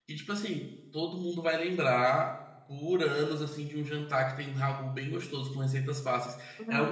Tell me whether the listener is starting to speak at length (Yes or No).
Yes